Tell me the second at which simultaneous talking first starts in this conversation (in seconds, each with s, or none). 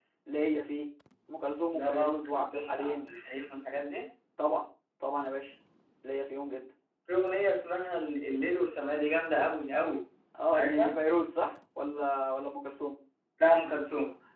1.7 s